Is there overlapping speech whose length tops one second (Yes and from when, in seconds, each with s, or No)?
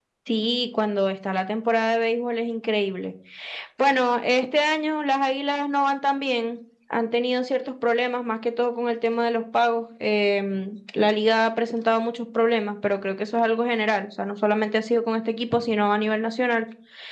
No